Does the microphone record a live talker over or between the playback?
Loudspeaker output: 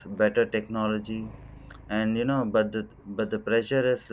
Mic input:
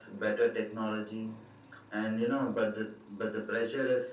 No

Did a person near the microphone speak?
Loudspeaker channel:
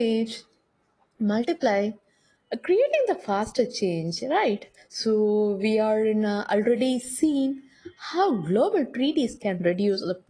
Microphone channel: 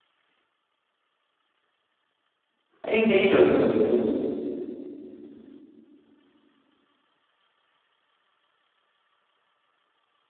Yes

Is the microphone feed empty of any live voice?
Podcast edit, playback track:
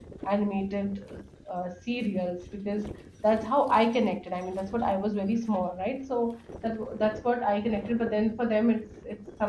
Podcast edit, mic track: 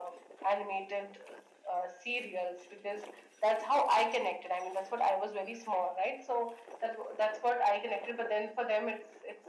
Yes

